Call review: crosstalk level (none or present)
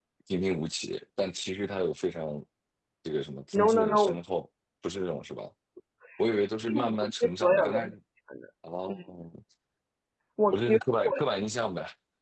present